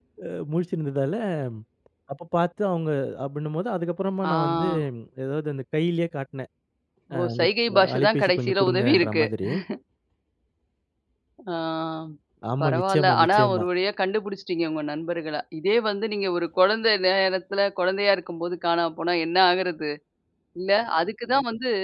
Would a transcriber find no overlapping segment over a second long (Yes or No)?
No